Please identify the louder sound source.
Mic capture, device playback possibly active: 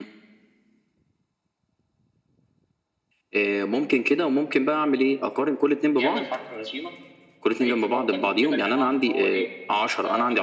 echo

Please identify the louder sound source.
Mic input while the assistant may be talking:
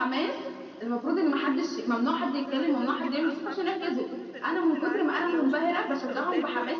echo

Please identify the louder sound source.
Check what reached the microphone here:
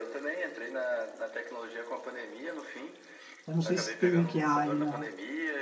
user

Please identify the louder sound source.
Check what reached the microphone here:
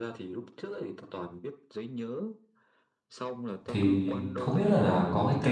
user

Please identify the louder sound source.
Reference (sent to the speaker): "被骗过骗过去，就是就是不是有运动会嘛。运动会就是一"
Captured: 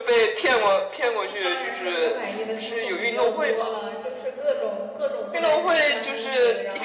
echo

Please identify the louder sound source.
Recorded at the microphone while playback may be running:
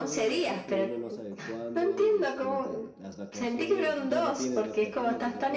echo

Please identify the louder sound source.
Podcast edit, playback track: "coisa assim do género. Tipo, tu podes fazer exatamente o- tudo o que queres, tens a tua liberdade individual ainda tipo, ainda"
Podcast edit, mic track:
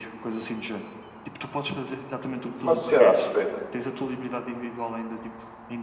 user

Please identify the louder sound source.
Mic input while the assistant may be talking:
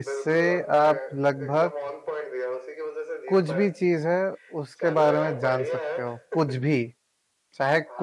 user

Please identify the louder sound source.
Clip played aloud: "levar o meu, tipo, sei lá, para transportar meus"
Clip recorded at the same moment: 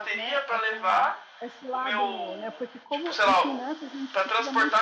echo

